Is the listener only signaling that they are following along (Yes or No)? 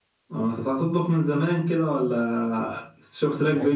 No